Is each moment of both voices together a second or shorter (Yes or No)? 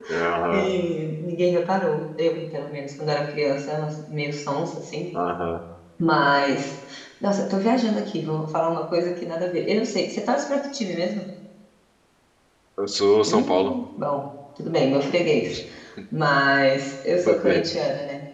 Yes